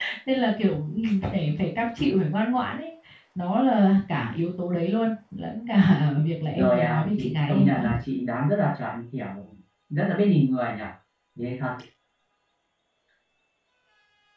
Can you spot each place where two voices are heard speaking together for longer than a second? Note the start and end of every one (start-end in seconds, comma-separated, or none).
6.5-7.9